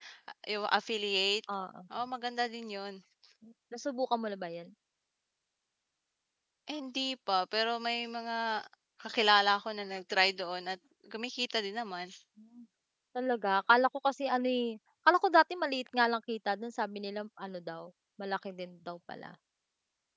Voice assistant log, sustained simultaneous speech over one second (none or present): none